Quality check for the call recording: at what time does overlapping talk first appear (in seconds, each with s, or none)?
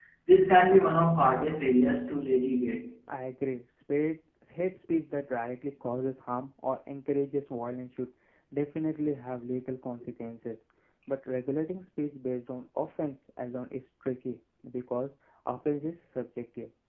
none